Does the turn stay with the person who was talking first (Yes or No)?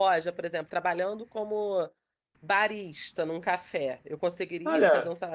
No